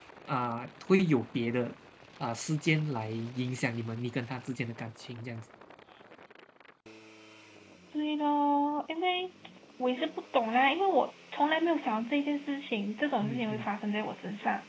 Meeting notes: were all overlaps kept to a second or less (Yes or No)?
Yes